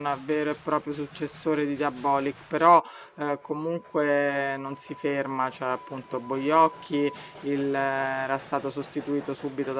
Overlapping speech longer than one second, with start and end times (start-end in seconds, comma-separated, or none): none